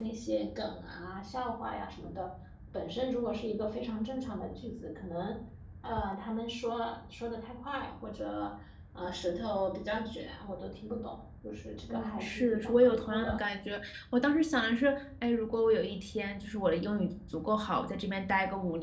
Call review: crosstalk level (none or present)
present